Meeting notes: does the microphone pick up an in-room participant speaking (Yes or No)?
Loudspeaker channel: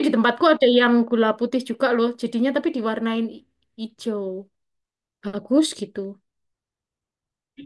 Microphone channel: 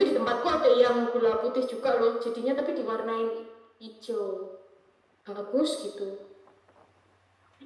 No